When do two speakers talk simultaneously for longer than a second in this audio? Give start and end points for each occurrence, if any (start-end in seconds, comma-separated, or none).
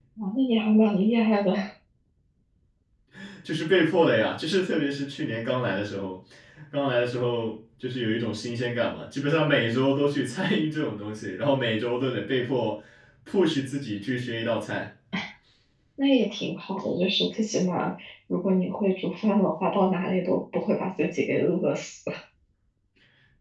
none